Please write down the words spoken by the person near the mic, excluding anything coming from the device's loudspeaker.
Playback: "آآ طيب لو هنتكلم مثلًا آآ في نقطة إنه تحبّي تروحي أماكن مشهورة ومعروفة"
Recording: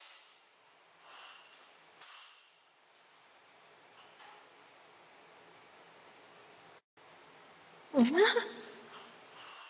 مهم.

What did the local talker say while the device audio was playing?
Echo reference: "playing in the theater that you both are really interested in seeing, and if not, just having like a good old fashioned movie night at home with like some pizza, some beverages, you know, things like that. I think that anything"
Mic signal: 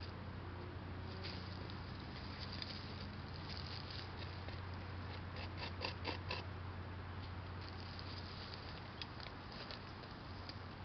none

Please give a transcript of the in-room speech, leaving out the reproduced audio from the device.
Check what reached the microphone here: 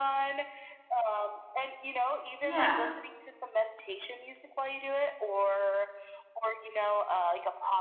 Yeah.

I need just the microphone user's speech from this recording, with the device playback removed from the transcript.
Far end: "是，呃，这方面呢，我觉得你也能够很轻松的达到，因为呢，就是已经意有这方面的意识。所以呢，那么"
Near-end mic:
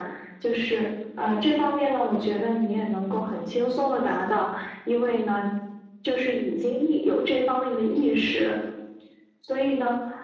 none

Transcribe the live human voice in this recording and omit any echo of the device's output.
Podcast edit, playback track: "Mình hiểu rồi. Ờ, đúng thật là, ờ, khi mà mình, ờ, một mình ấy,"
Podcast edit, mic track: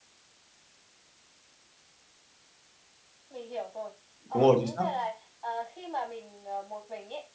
Đúng rồi, chính xác.

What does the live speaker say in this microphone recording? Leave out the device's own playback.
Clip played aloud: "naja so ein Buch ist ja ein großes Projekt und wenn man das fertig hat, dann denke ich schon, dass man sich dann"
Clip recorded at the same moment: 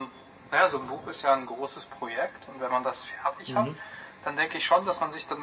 mhm.

